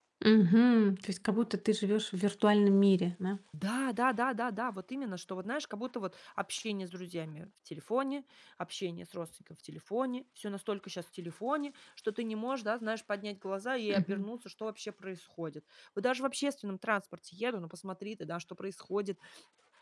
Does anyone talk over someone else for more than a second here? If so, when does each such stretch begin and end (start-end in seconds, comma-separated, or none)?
none